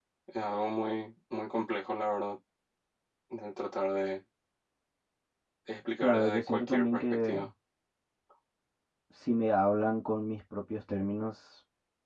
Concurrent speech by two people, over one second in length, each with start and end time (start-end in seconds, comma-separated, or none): 6.0-7.3